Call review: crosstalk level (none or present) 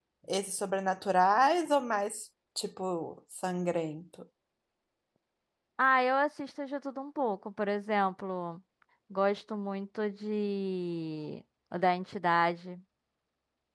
none